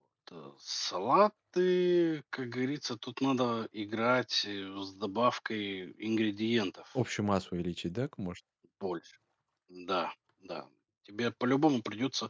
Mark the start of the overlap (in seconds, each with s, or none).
none